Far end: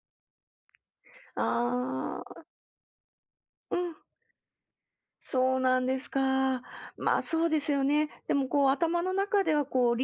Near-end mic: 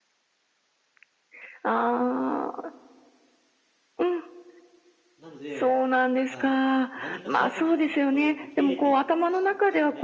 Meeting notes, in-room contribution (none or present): present